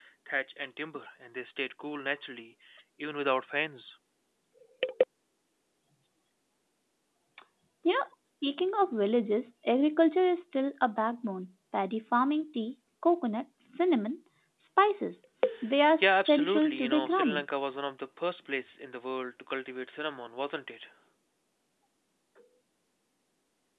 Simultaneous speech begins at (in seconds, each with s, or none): 16.0 s